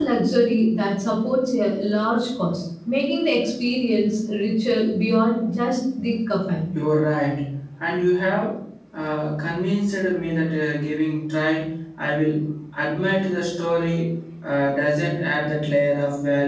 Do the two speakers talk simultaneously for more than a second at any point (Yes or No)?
No